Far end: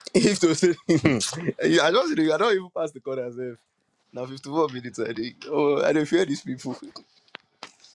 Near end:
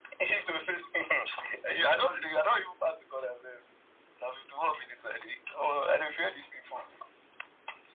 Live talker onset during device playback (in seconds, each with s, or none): none